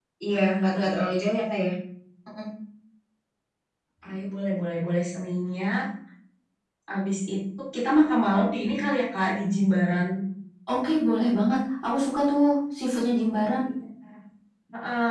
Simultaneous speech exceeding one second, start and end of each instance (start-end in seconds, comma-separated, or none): none